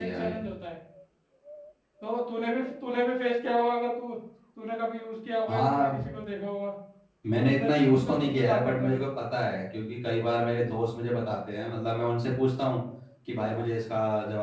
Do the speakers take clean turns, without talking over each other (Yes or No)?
No